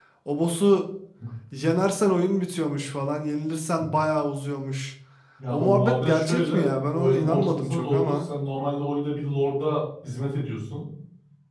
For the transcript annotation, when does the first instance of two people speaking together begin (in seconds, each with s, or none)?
5.5 s